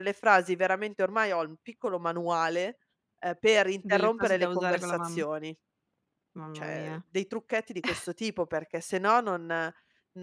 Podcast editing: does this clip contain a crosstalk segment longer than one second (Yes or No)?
Yes